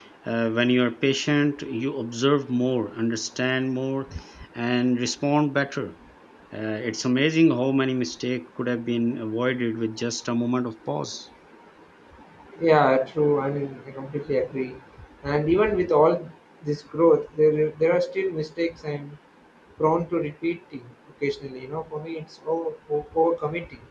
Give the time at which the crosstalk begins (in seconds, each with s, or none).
none